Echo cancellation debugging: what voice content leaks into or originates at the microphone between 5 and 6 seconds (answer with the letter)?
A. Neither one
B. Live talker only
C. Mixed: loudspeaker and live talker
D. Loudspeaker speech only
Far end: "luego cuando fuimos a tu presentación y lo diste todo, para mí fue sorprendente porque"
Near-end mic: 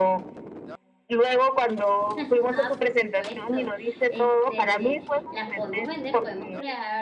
C